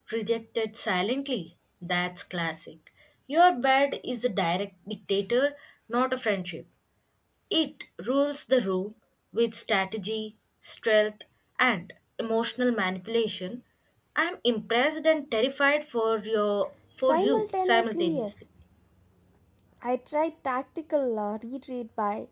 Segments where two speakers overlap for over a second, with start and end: 16.9-18.4

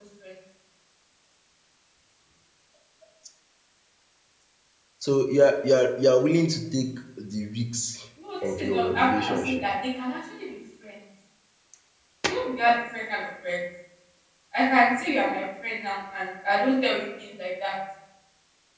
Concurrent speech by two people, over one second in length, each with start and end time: 8.4-9.7

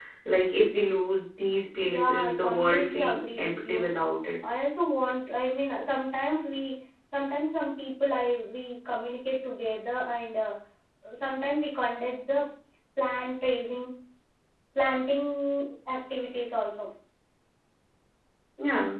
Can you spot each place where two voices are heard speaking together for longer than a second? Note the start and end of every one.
1.9-3.9

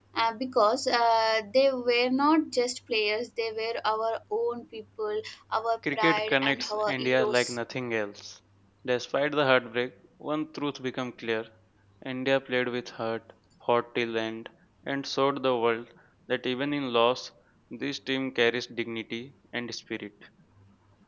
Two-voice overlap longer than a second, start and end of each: 5.9-7.6

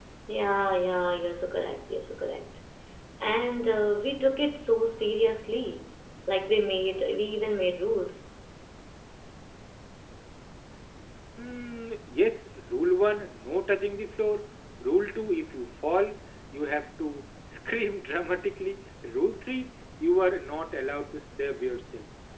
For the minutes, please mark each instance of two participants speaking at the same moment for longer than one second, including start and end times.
none

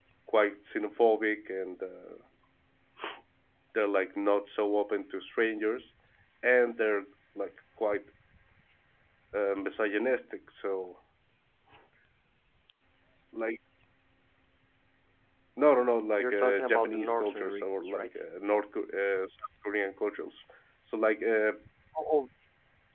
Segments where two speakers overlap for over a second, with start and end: 16.2-18.1

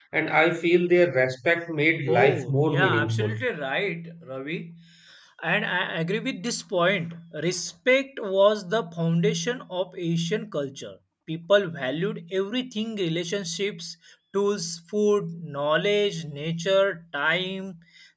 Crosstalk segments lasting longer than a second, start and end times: 2.1-3.4

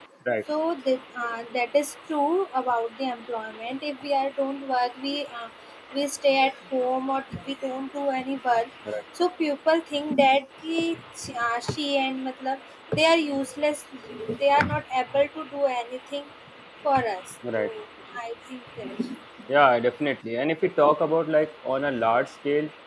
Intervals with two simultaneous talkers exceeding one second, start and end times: none

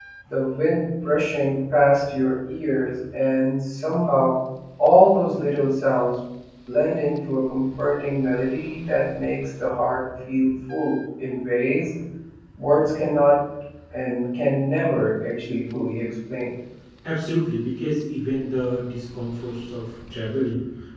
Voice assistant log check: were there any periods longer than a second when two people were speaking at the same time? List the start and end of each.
none

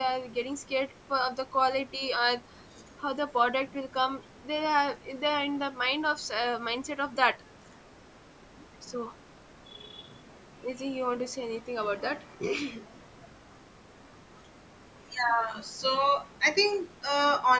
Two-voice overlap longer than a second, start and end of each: none

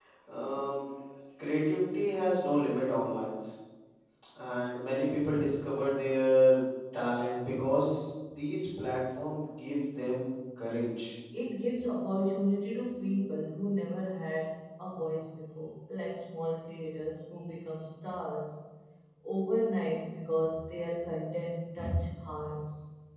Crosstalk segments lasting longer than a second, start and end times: none

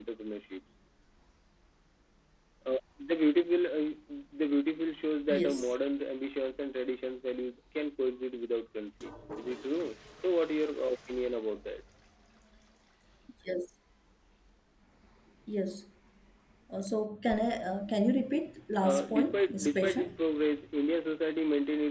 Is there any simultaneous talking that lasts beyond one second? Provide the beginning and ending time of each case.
18.8-20.2

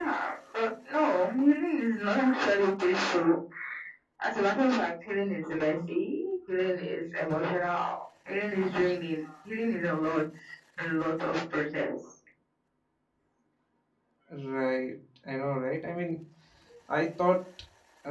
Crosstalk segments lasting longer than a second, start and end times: none

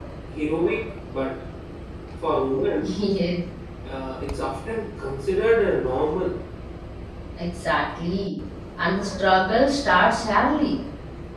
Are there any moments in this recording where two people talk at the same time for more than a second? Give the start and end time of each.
none

